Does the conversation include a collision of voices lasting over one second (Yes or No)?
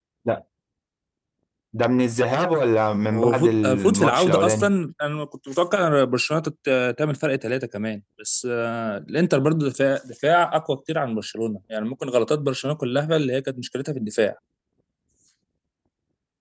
Yes